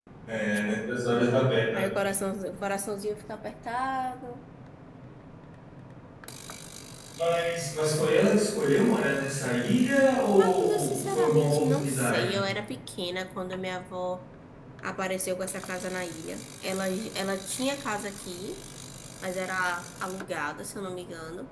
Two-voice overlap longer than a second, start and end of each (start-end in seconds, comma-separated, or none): 10.4-12.5